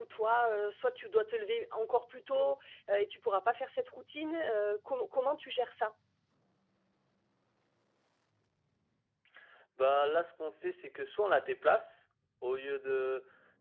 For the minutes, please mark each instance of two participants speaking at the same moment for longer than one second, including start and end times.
none

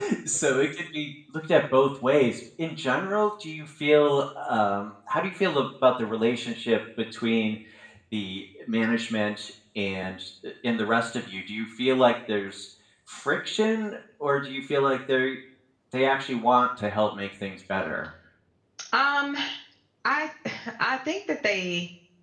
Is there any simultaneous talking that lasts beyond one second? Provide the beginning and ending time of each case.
none

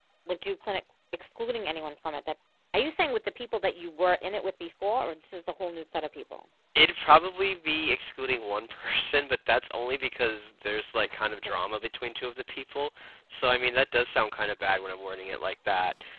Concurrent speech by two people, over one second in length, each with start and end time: none

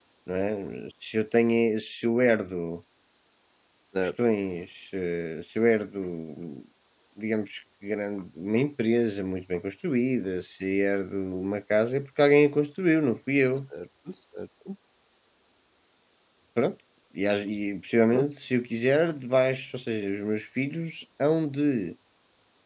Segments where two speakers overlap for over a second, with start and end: none

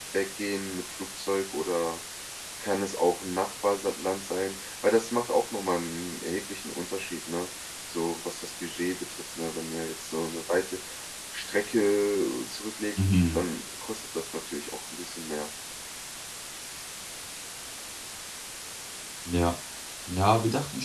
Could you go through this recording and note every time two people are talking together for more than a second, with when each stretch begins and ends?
none

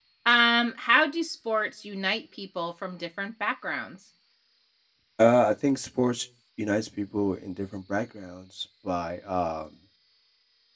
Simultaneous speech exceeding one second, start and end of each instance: none

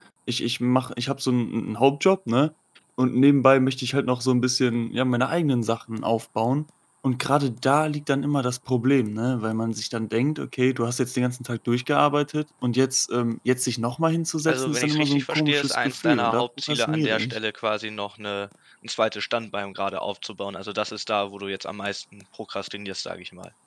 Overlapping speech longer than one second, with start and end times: 14.5-17.4

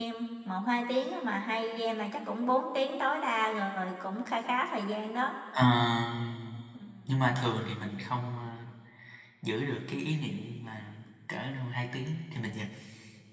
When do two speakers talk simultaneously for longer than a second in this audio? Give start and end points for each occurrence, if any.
none

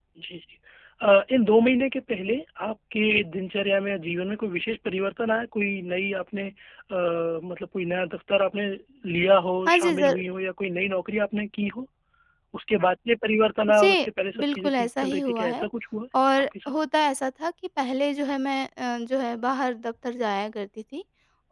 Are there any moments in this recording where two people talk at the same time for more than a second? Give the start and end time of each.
14.4-15.7

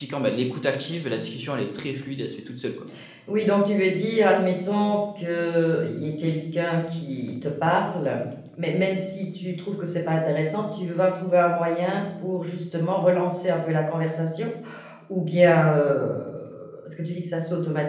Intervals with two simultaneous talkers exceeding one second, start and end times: none

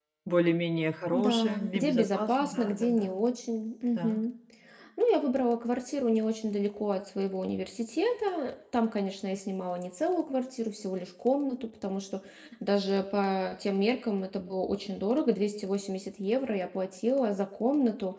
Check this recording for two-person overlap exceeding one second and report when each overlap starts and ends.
1.1-3.2

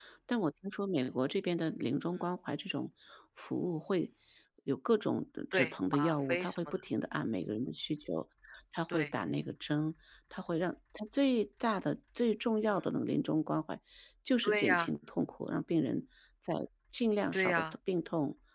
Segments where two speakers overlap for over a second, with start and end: 5.5-6.8

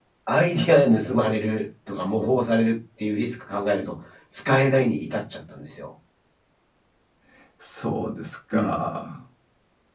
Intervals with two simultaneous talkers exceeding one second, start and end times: none

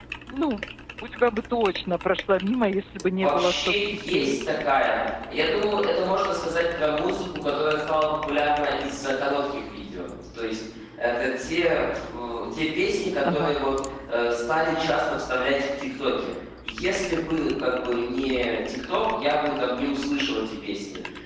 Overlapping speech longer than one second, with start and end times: 3.2-4.4

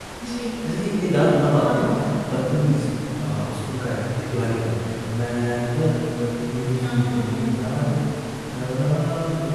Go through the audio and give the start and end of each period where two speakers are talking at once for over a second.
6.8-8.0

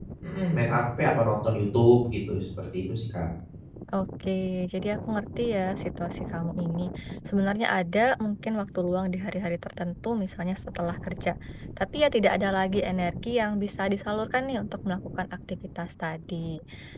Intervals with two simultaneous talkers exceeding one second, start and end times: none

